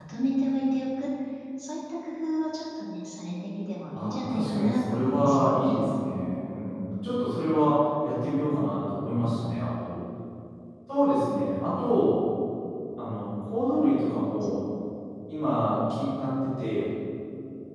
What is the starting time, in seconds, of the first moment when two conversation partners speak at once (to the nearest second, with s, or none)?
4 s